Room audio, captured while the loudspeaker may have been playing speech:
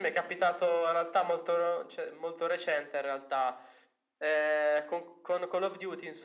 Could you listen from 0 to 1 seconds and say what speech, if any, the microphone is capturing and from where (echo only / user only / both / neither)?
echo only